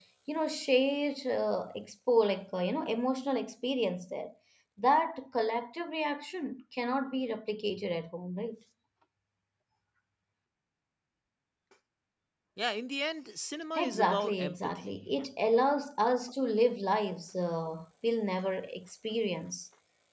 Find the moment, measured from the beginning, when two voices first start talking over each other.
13.8 s

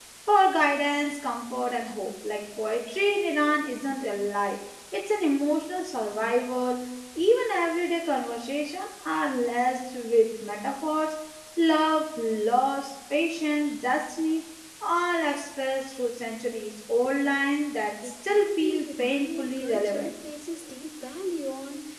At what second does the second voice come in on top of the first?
18.0 s

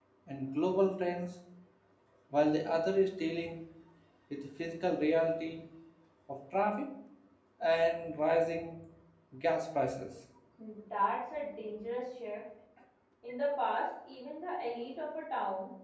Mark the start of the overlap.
none

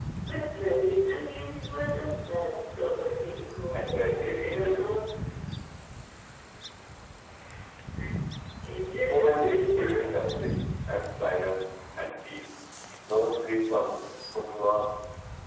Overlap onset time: 3.7 s

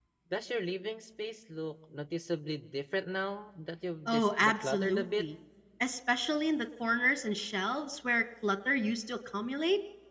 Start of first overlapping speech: 4.1 s

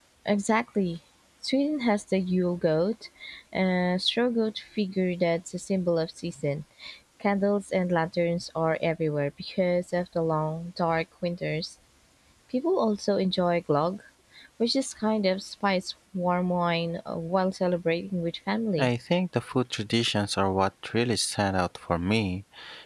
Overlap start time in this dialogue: none

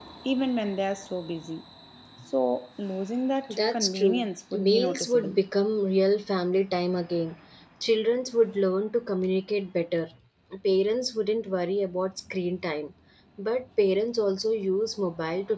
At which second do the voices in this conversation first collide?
3.5 s

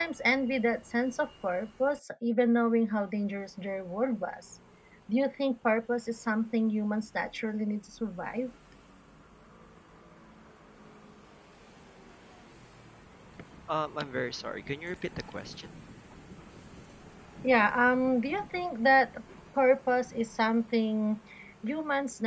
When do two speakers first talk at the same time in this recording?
none

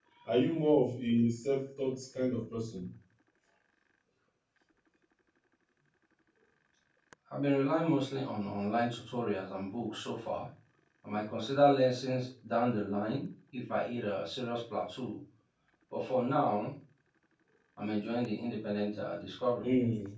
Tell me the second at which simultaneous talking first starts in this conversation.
none

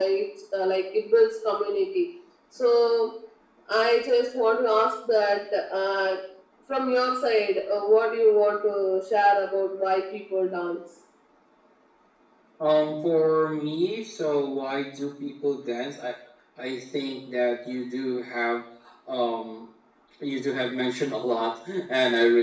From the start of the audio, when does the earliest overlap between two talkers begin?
none

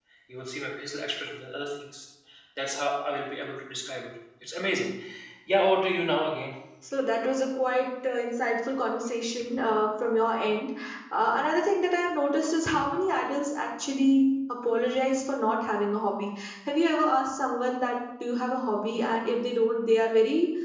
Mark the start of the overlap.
none

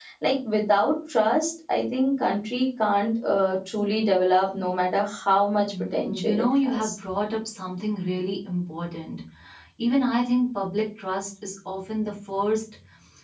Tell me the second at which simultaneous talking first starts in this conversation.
5.7 s

